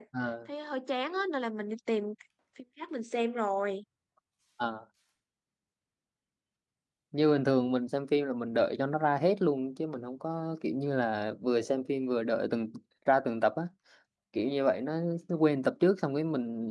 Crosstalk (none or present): none